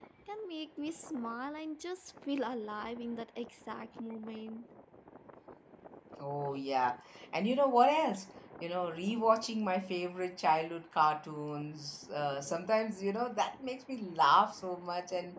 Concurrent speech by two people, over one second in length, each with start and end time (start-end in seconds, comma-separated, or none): none